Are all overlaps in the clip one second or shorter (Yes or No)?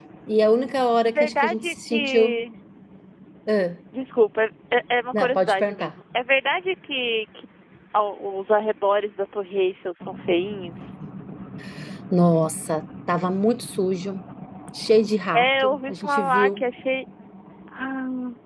No